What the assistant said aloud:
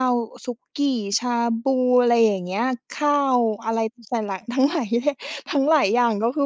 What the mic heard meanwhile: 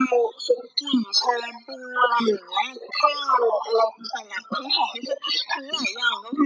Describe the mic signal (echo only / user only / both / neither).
echo only